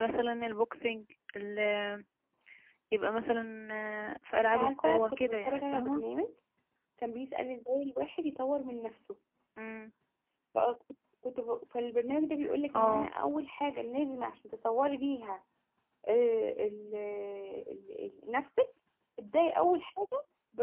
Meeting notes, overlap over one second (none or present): present